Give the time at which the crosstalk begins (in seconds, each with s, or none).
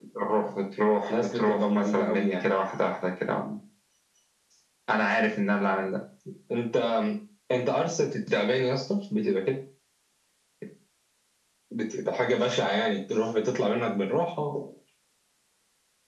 1.1 s